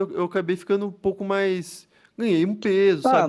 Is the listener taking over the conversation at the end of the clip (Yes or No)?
Yes